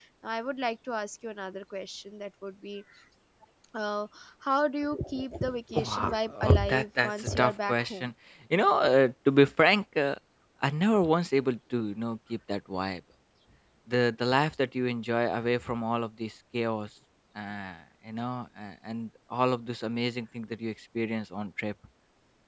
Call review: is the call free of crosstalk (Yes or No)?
No